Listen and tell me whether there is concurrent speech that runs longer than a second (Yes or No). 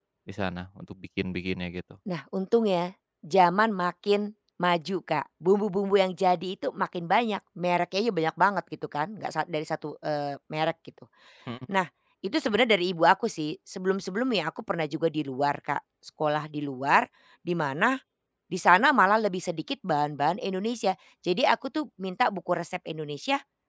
No